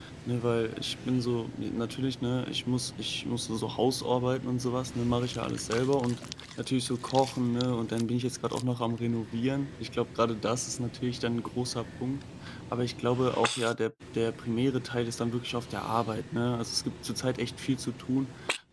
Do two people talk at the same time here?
No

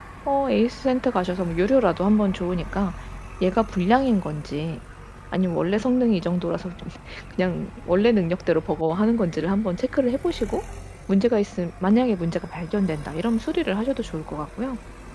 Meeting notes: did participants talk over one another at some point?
No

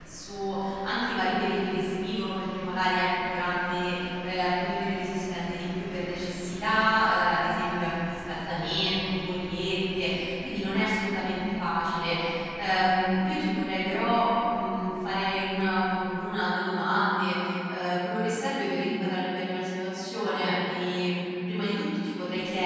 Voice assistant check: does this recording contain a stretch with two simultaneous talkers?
No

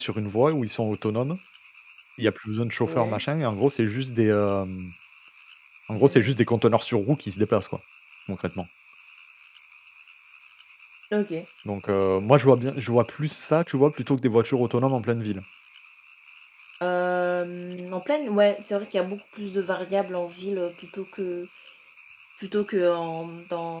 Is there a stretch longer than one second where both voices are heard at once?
No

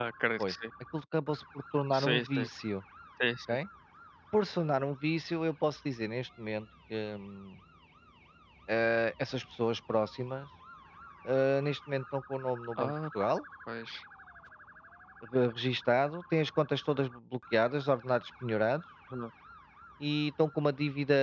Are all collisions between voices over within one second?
Yes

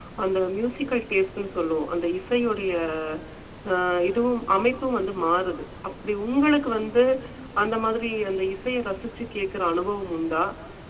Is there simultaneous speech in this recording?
No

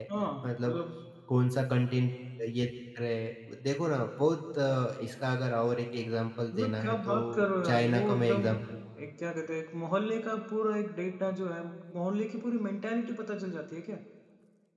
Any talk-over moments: Yes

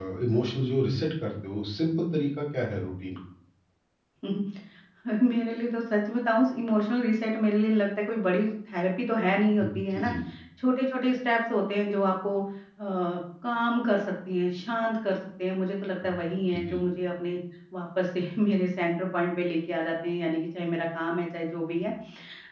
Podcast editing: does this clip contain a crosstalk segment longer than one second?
No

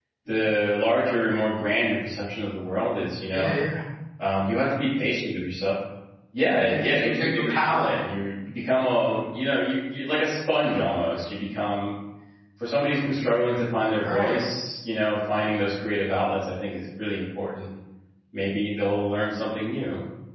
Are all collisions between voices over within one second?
No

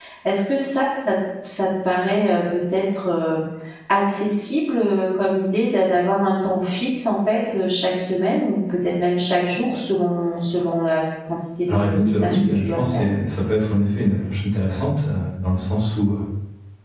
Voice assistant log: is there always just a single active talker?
No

